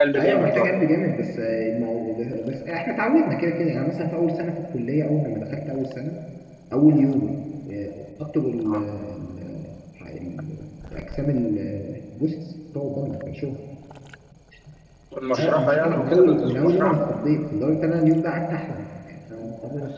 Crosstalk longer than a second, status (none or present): present